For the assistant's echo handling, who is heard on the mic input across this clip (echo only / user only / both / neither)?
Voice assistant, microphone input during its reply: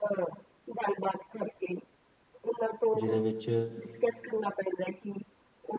both